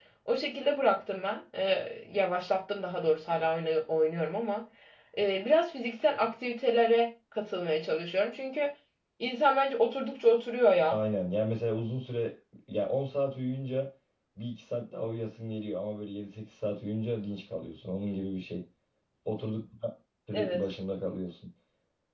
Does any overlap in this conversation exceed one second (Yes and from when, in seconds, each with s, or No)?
No